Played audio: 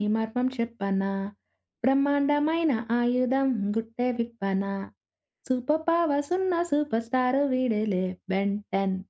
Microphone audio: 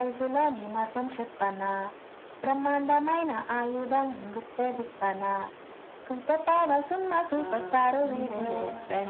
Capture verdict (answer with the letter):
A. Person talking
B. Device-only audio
A